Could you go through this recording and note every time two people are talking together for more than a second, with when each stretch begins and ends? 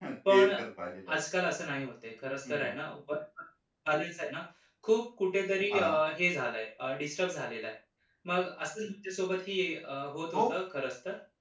none

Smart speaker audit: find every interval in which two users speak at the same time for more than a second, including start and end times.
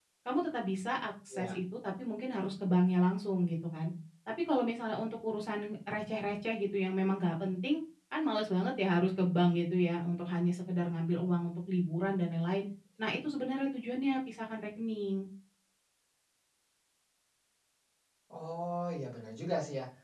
none

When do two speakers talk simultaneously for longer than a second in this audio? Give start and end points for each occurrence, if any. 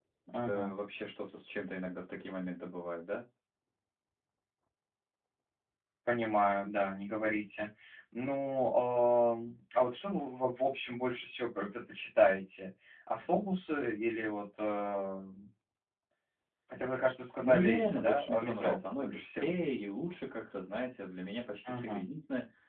17.4-19.5

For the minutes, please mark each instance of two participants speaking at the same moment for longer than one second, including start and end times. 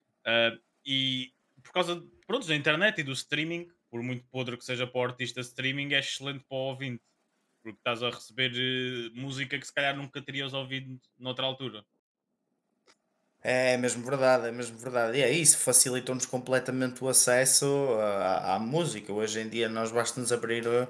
none

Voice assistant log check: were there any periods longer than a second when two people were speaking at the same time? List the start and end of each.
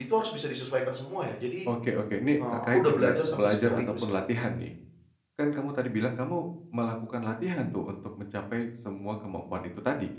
2.5-4.1

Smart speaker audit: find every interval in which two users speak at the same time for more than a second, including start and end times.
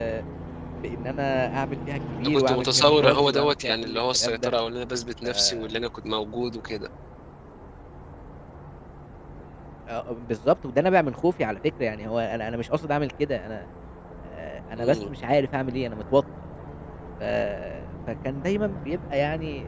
2.2-4.5

